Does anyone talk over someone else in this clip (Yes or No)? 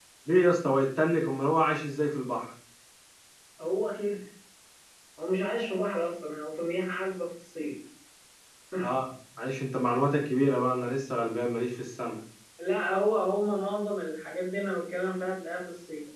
No